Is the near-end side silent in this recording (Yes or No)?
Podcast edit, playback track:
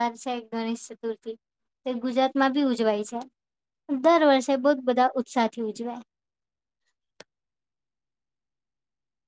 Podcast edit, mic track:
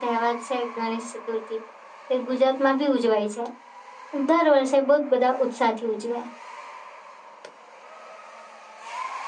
Yes